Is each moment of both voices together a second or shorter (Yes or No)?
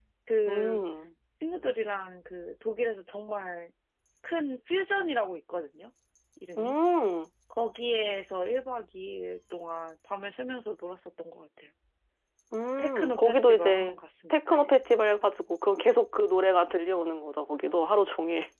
No